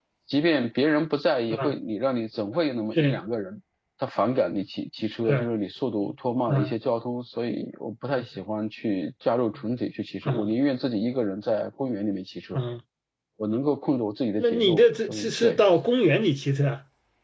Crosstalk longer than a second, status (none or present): present